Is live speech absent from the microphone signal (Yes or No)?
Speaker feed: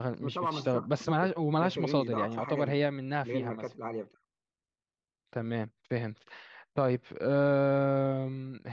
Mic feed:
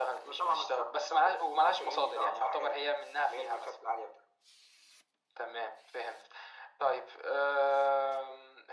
Yes